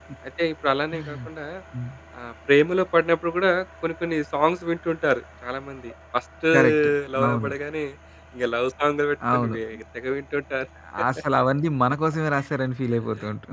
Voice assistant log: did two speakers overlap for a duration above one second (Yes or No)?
No